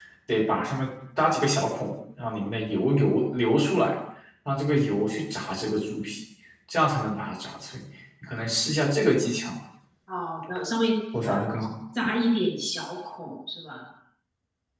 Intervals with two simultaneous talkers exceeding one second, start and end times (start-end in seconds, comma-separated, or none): none